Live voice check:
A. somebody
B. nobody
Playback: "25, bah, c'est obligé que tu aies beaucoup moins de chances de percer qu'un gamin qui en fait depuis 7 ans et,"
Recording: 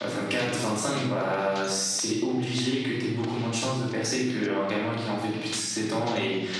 B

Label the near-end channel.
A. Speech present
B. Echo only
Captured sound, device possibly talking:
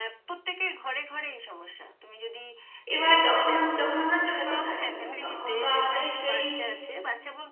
A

